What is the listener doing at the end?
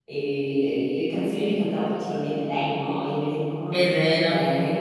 listening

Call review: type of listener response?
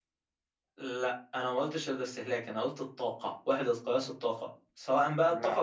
listening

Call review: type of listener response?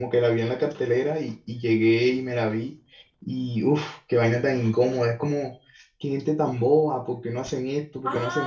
taking over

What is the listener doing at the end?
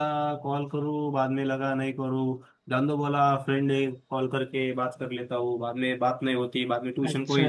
taking over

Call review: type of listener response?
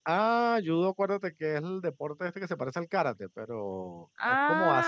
listening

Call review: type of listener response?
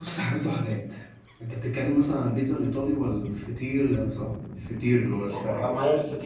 taking over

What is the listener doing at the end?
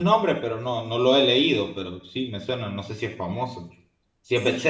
taking over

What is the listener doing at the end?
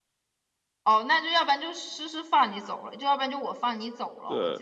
taking over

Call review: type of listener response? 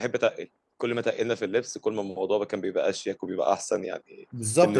taking over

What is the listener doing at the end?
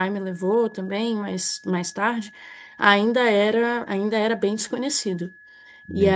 taking over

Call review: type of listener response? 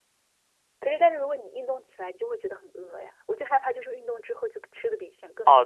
taking over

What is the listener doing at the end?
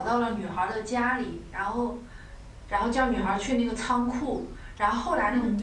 listening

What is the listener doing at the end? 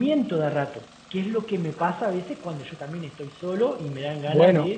taking over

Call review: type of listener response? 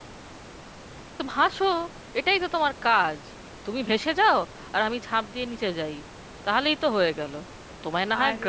listening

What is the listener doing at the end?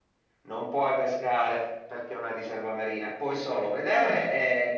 listening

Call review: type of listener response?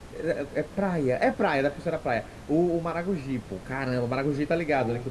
listening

